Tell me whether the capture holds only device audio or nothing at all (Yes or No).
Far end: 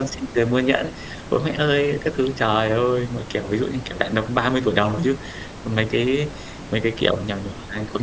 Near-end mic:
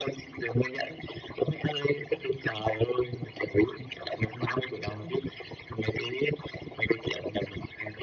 Yes